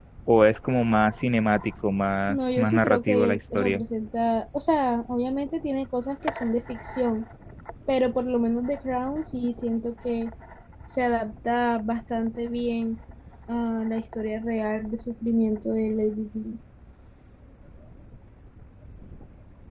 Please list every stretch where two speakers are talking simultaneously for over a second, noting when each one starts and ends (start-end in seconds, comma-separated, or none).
2.3-3.8